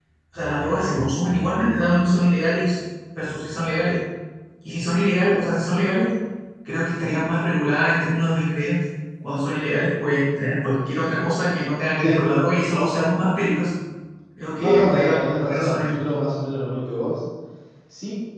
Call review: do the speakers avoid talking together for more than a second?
No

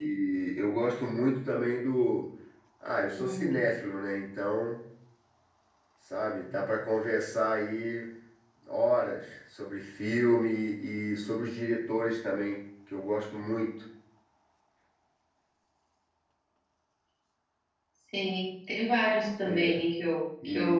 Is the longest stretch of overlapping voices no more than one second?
Yes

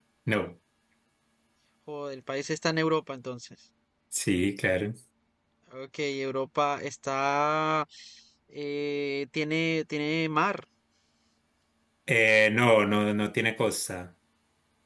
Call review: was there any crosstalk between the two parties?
No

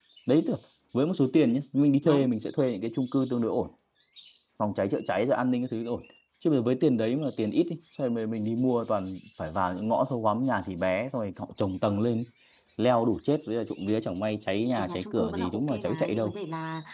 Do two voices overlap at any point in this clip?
Yes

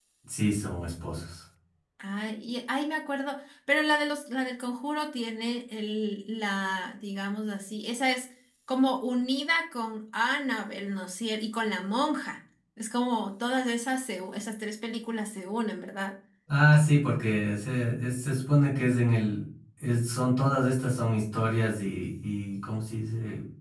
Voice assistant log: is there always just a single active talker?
Yes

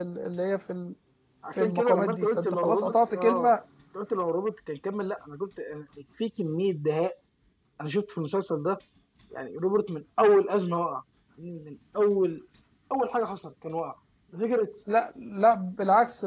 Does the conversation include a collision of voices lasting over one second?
Yes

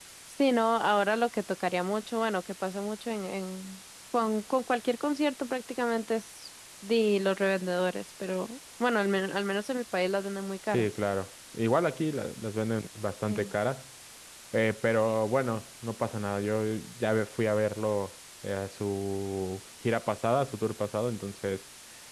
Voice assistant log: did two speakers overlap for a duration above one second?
No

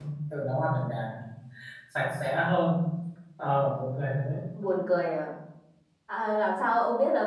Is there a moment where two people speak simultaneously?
No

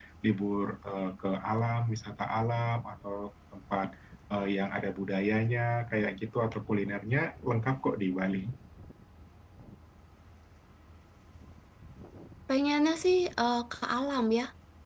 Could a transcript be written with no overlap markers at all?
Yes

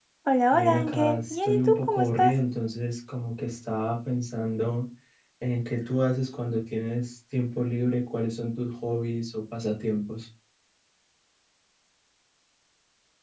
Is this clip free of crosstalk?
No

